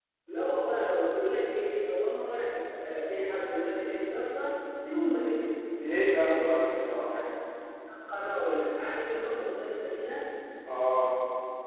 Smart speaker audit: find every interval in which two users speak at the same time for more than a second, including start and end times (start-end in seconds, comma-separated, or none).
none